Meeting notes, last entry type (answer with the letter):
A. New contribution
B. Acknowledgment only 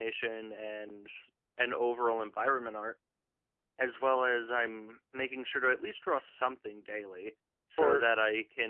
B